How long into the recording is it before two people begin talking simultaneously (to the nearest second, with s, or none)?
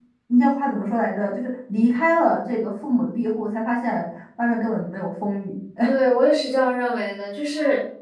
none